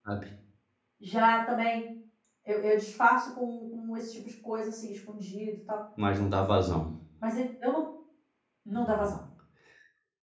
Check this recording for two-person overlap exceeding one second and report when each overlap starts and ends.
none

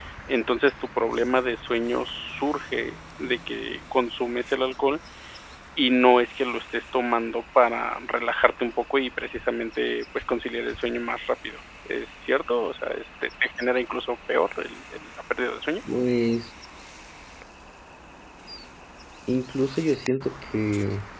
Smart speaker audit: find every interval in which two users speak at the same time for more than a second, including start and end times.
none

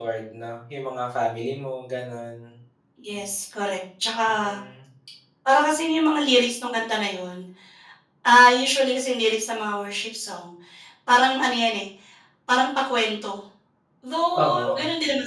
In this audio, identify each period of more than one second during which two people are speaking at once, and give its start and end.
none

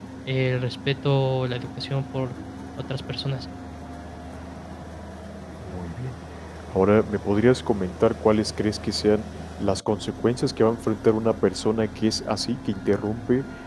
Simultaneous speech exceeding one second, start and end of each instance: none

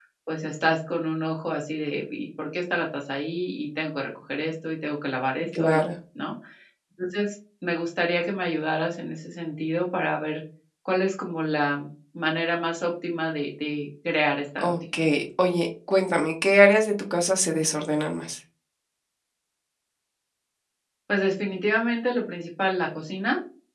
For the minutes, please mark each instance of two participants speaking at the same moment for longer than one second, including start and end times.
none

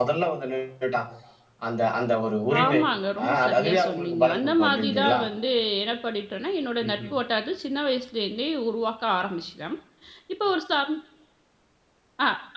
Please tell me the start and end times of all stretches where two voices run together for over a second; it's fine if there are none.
3.2-5.2

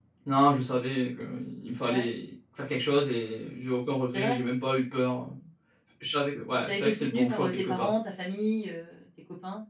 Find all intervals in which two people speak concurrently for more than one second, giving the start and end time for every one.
6.7-7.9

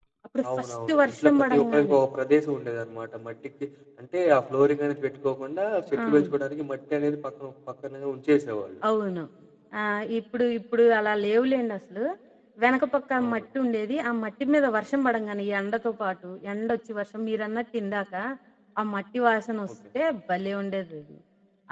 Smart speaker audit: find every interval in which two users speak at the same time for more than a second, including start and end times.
0.6-2.0

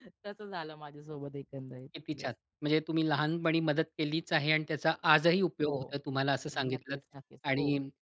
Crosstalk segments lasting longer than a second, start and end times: none

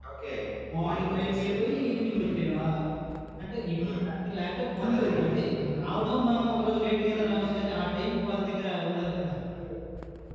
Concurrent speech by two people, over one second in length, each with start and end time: 0.8-2.4

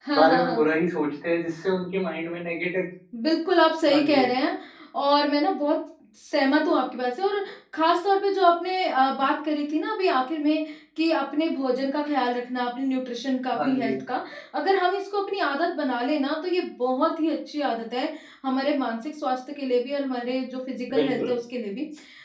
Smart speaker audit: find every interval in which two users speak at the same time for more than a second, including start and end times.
none

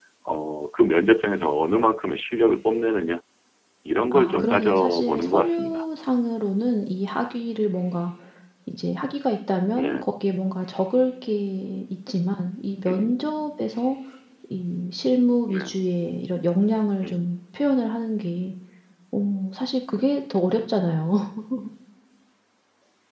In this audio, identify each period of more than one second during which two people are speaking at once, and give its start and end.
4.1-5.8

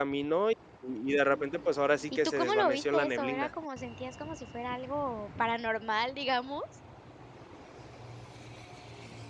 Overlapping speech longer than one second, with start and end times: 1.3-3.5

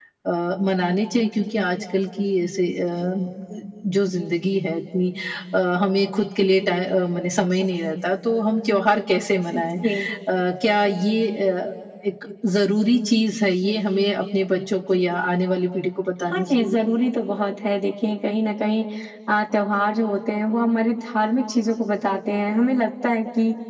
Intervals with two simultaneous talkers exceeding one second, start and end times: none

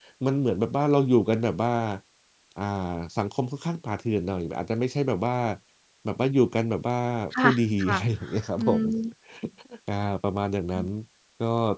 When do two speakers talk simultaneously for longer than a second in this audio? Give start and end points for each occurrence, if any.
7.4-8.8

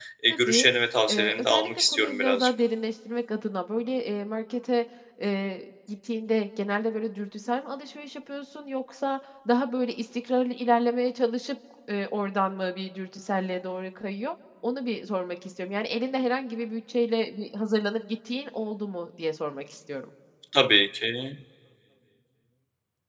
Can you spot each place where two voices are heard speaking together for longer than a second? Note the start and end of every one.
1.1-2.5

